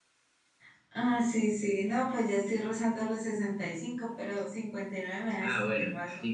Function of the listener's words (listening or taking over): taking over